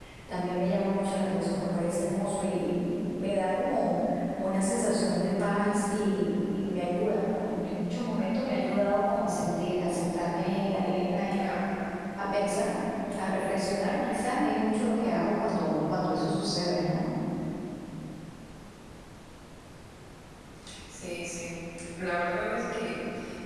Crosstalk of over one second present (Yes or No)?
No